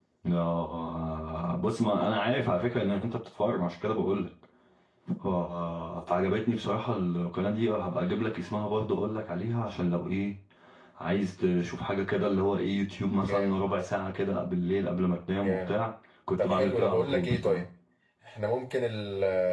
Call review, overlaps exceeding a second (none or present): present